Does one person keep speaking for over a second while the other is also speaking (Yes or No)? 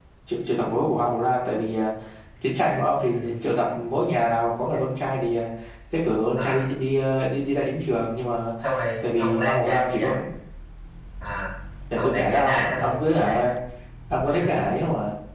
Yes